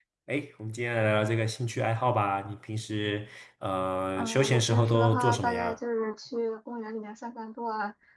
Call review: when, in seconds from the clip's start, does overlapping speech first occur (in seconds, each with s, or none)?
4.2 s